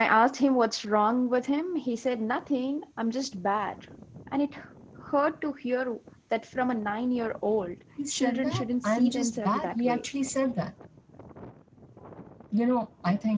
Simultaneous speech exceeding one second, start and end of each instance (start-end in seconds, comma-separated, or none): 8.1-10.1